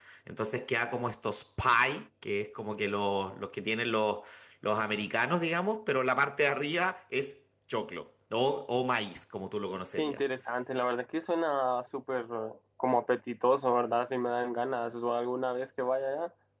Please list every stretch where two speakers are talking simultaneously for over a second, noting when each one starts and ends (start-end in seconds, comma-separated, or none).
none